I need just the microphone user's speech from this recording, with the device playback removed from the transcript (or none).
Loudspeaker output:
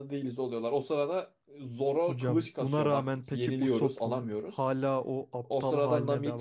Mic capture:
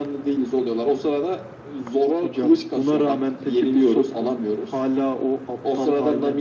none